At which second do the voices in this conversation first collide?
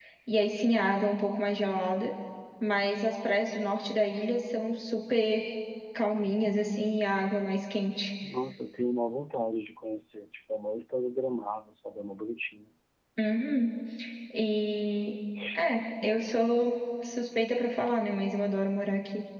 none

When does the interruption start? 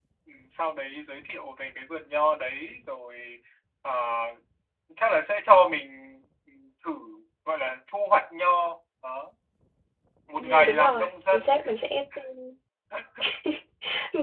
10.4 s

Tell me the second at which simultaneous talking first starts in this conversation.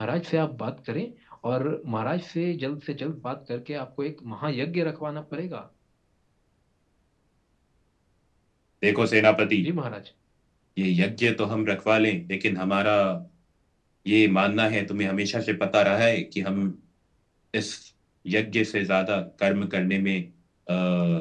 none

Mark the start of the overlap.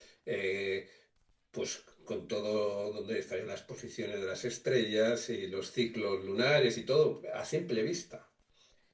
none

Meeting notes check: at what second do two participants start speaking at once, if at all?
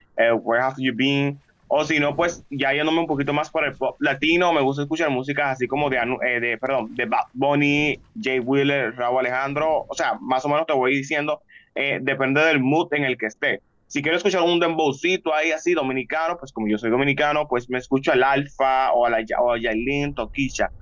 none

